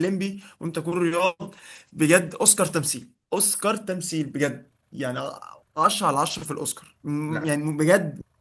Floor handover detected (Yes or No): No